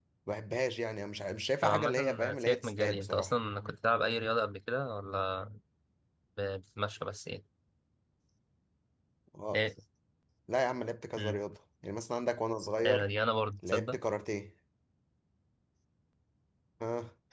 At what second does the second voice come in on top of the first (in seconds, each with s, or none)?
1.6 s